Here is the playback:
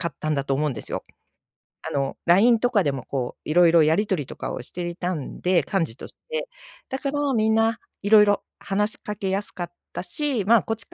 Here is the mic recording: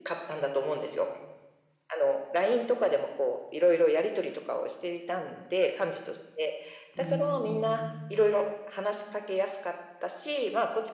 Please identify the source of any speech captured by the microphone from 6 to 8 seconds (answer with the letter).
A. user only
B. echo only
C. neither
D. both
D